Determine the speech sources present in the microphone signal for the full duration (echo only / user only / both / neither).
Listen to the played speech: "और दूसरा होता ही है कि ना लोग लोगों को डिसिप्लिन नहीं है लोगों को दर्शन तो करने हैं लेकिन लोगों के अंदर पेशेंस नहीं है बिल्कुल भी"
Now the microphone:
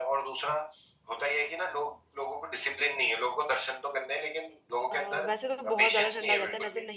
both